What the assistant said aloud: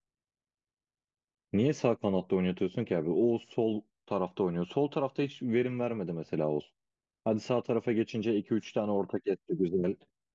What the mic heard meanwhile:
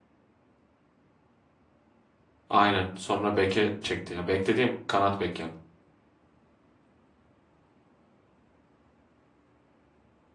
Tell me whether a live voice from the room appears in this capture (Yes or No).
Yes